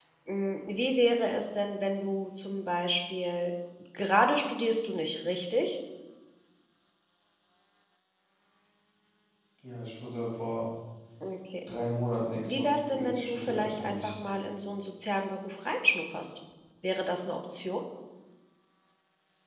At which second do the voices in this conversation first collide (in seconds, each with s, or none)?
12.4 s